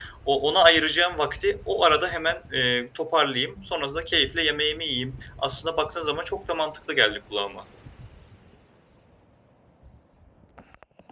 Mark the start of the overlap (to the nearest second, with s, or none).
none